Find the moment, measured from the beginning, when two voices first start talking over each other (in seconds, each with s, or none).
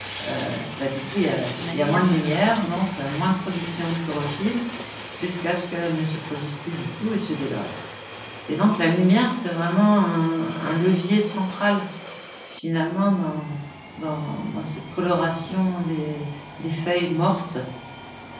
1.2 s